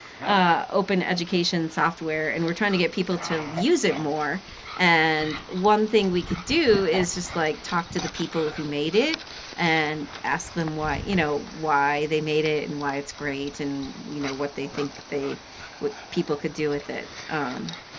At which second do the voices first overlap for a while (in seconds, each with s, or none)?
none